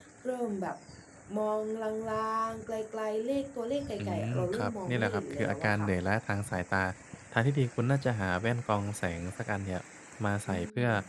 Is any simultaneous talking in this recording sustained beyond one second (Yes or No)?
Yes